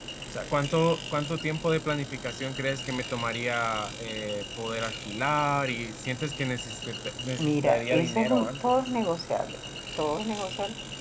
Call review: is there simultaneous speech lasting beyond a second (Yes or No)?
Yes